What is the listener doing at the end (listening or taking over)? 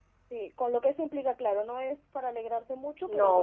listening